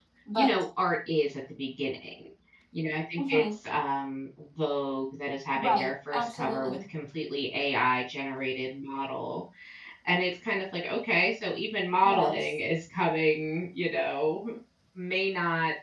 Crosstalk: present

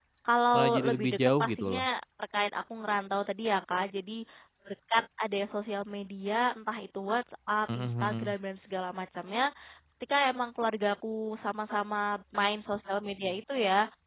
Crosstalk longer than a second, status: present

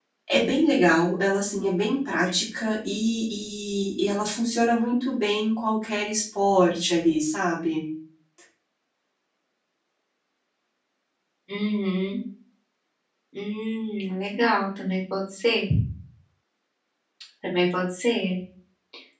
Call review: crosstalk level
none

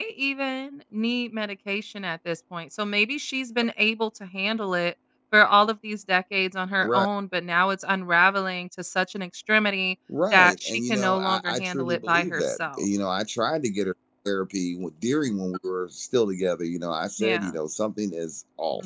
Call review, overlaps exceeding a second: present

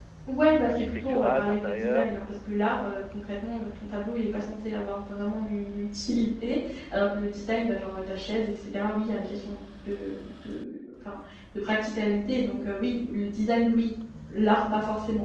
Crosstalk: present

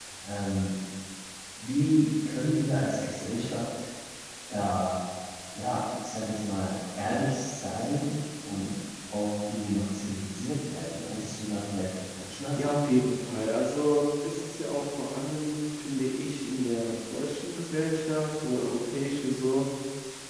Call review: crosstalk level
none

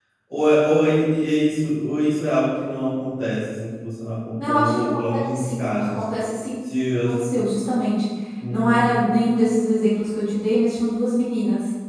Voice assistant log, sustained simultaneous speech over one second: present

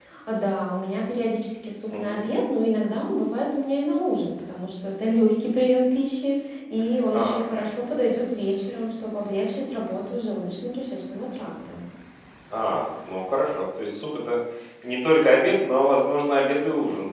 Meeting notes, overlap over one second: none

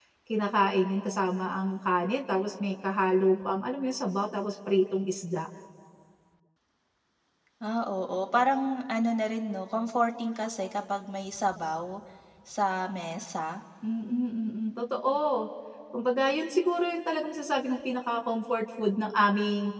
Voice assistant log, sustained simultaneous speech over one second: none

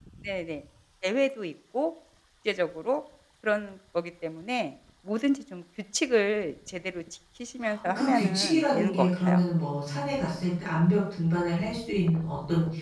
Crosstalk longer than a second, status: present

